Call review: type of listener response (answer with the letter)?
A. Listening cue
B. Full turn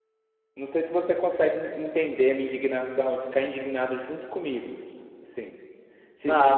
B